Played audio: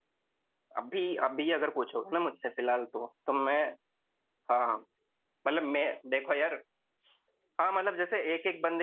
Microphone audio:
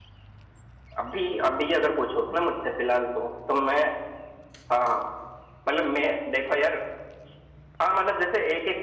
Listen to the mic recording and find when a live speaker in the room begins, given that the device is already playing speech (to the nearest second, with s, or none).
none